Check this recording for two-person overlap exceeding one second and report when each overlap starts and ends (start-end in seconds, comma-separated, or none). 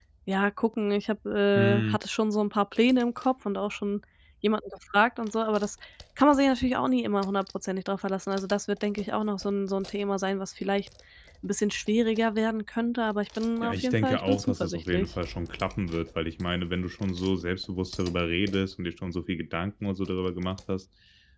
13.6-15.1